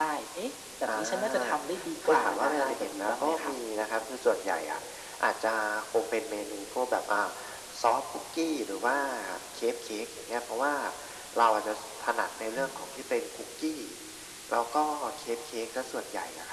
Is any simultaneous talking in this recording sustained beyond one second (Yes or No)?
Yes